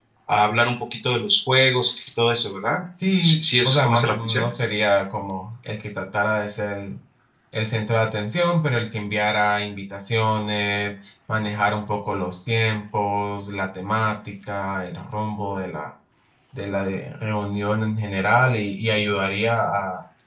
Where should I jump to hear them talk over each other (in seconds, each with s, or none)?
3.2 s